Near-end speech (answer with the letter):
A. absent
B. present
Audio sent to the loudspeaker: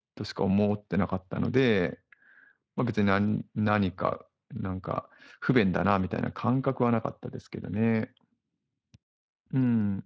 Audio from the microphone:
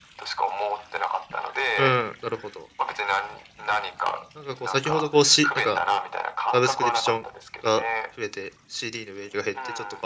B